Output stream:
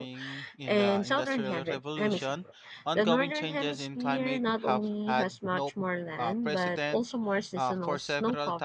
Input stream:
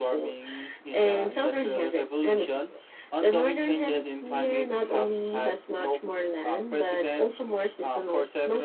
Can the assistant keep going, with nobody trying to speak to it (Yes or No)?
Yes